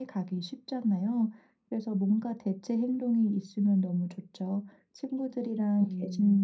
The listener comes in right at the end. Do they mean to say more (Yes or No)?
No